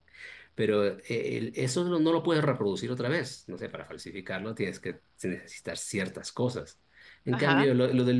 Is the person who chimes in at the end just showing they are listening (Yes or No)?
Yes